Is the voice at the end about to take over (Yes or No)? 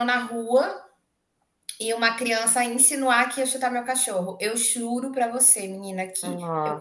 No